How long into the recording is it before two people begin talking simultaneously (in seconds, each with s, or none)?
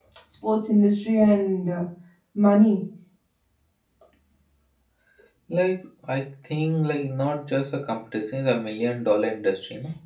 none